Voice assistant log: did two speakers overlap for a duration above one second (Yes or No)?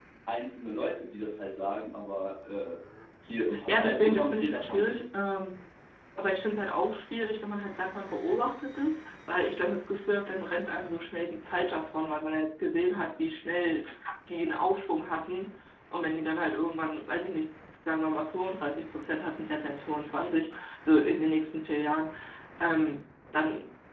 Yes